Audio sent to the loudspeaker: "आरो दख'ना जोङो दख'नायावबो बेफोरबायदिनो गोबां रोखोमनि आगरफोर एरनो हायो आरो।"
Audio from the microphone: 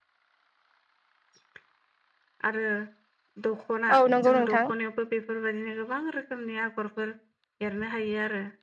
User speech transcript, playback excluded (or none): औ नंगौ नोंथां